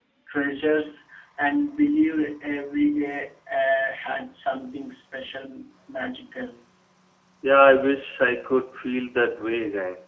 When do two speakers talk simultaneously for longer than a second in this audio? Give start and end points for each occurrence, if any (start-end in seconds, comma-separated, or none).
none